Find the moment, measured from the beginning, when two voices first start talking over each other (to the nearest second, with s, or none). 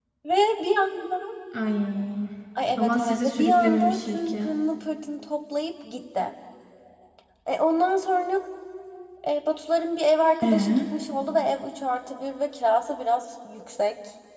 3 s